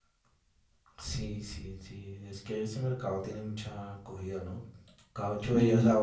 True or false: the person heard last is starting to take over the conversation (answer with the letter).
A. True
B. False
B